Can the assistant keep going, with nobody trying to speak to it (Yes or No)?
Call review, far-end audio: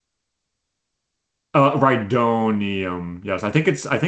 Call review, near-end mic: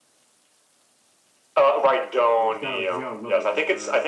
No